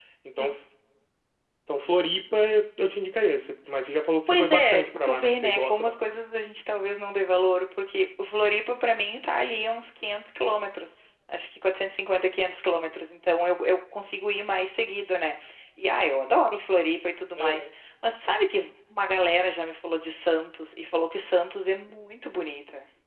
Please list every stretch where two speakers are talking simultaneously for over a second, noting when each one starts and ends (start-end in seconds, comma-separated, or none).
4.3-6.2